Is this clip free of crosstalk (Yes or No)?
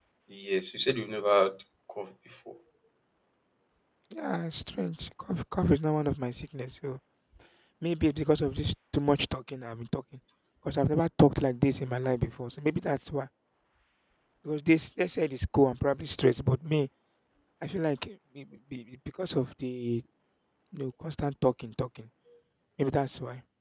Yes